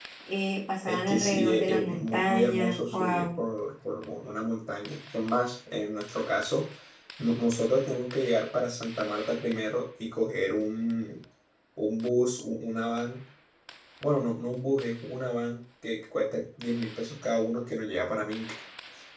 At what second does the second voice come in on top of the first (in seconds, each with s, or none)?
0.8 s